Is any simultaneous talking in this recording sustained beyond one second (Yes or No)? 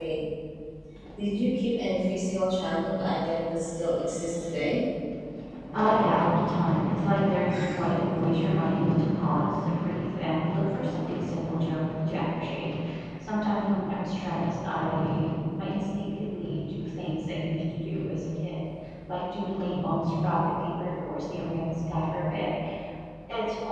No